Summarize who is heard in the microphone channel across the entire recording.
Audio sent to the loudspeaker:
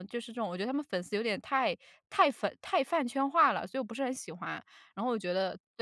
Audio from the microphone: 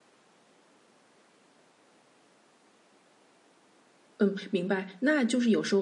user only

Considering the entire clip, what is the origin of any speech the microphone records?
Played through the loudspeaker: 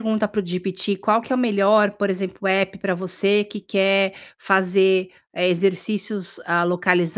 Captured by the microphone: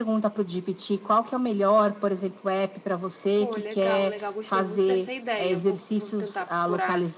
both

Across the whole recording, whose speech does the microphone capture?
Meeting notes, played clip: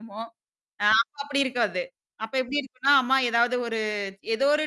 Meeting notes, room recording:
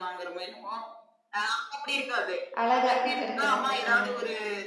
both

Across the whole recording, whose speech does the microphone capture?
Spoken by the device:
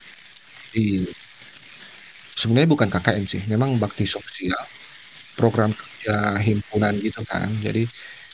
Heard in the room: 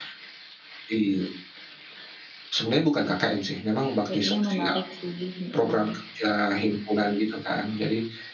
both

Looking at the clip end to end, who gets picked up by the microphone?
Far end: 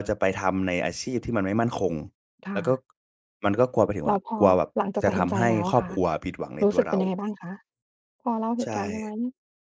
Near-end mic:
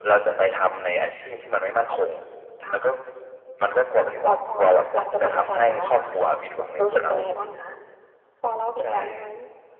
echo only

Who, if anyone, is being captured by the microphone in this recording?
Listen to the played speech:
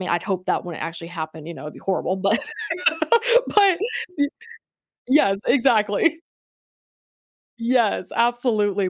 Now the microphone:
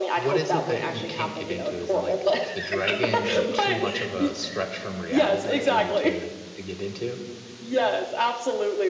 both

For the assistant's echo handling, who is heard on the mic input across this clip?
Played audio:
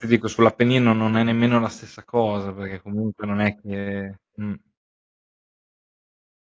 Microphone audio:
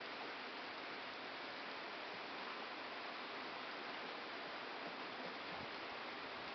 neither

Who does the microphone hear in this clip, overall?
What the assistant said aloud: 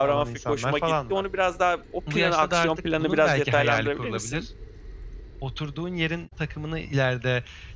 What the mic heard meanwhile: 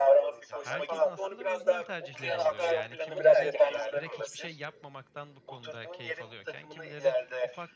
both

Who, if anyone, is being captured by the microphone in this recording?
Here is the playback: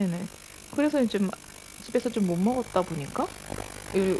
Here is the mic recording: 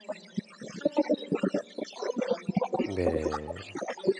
both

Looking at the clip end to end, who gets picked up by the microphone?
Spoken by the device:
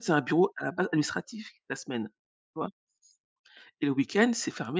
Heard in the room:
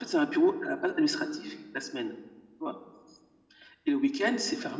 echo only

